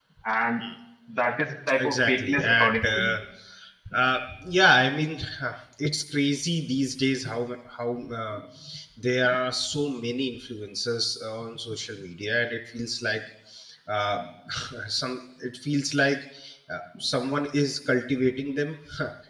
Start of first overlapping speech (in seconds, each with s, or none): 1.8 s